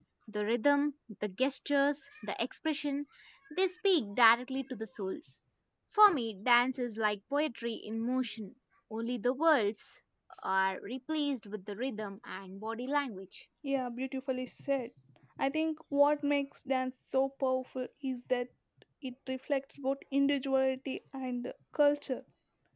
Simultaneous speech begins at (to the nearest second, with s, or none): none